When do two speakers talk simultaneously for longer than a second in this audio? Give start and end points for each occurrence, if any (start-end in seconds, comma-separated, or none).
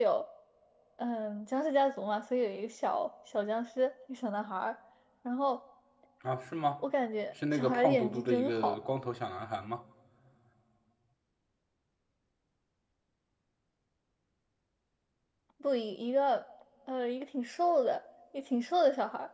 7.5-8.8